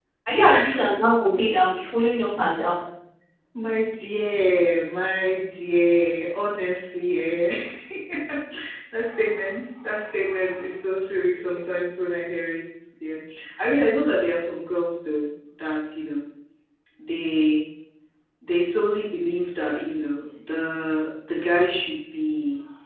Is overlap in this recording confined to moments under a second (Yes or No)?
Yes